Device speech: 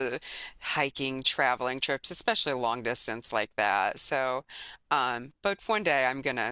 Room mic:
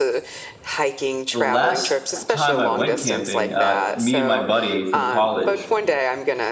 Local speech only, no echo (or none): the last time I went camping, uh, me and my buddy from college,